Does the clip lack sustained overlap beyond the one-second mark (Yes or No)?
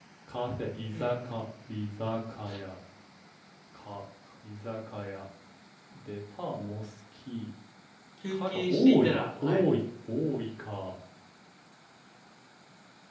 No